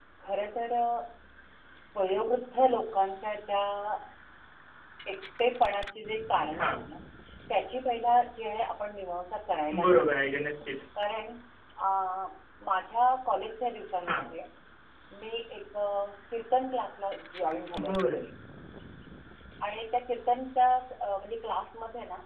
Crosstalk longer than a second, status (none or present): none